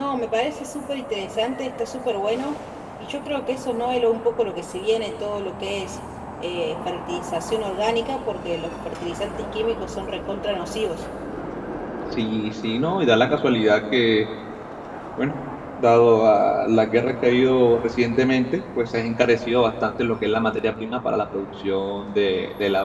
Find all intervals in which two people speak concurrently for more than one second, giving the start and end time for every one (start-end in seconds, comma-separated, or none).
none